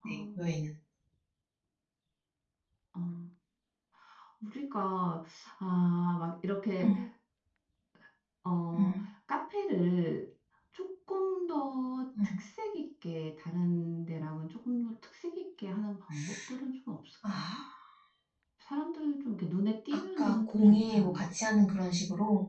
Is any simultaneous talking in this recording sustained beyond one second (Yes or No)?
Yes